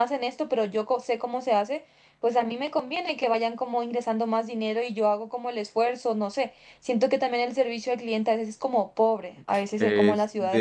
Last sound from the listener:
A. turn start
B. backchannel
A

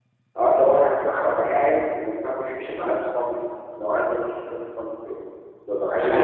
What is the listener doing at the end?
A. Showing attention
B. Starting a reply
A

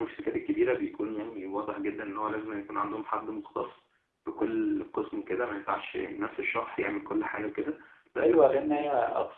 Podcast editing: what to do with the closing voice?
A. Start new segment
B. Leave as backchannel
A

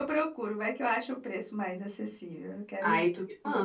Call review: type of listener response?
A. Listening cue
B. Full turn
B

